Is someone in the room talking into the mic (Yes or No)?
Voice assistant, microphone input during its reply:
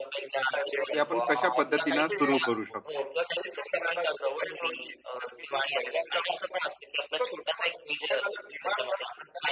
Yes